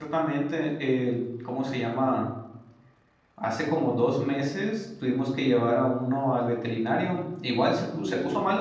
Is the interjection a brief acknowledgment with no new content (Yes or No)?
Yes